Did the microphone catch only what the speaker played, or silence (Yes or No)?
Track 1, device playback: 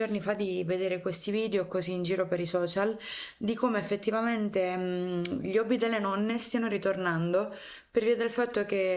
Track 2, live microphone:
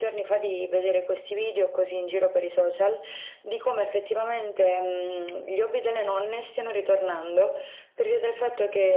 Yes